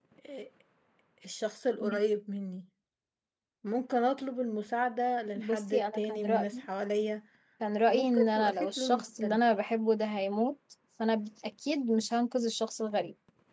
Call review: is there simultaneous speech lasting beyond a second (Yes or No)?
Yes